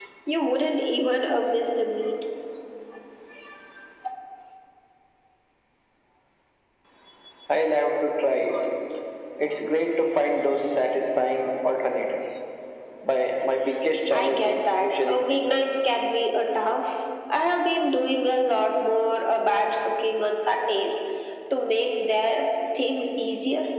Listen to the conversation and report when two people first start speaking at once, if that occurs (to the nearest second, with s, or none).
14 s